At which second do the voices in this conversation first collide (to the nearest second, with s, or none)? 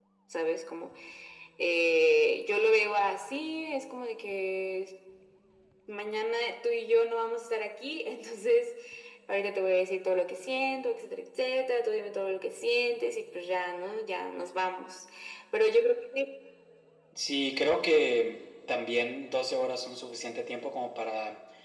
none